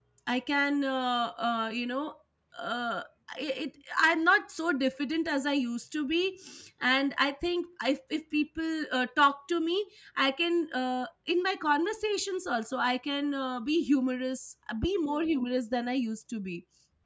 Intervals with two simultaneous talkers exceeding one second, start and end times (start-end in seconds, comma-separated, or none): none